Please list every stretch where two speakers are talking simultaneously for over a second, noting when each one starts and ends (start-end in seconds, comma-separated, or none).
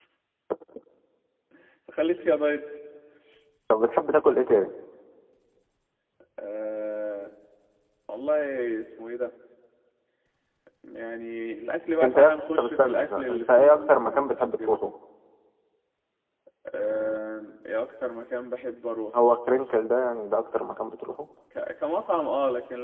12.0-14.8